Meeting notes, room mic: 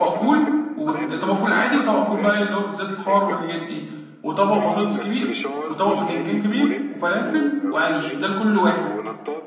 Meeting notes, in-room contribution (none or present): present